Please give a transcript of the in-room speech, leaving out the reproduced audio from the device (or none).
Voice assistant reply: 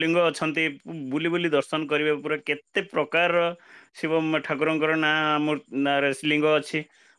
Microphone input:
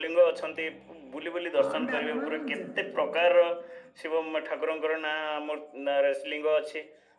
ହଁ ଡାଲମା ଯା